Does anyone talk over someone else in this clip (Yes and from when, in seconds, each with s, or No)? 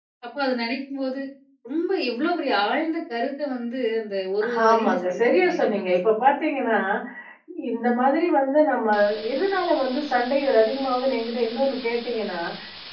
Yes, from 4.4 s